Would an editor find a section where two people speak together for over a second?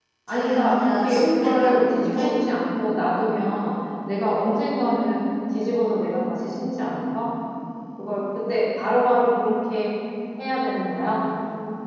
Yes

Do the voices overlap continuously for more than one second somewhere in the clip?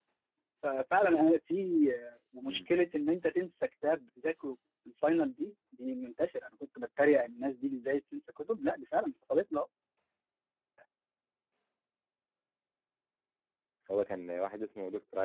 No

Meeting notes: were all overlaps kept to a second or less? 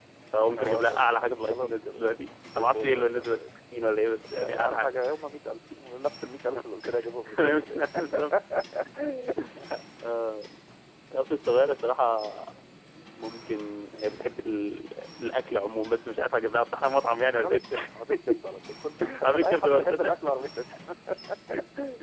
No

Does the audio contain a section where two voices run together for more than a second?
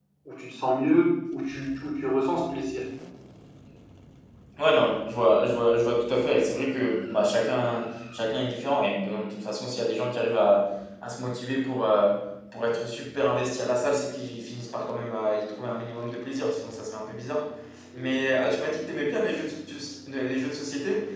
No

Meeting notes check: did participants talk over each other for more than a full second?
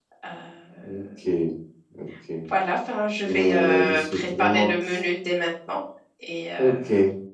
Yes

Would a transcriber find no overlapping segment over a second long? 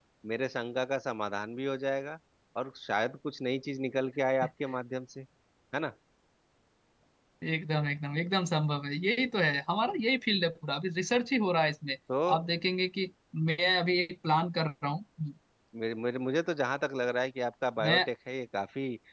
Yes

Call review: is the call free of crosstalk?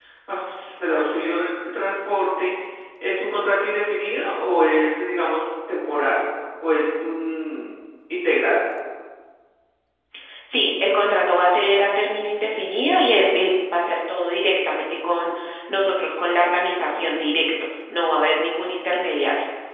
Yes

